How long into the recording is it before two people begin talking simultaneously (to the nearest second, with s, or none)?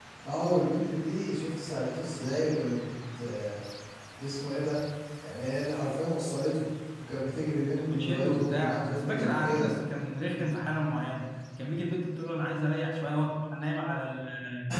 8 s